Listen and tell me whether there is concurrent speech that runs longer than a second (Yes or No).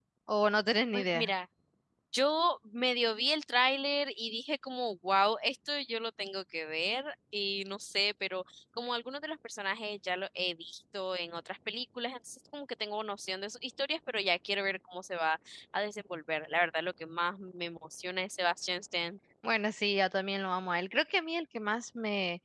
No